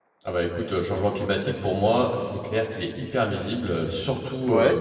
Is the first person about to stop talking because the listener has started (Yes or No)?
No